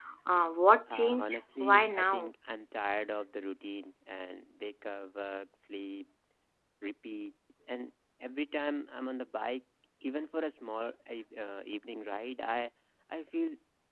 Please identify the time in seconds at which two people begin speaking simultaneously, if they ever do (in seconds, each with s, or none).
0.9 s